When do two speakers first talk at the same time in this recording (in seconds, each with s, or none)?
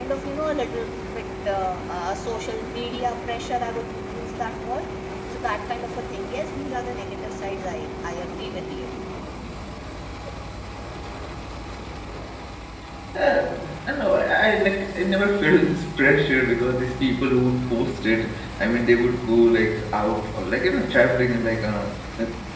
none